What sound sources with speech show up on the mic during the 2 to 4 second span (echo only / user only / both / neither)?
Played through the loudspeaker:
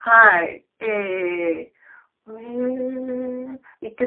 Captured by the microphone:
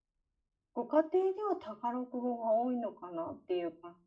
user only